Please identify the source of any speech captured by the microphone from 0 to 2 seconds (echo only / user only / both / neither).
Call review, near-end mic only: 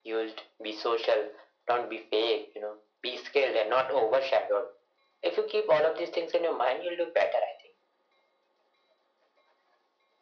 echo only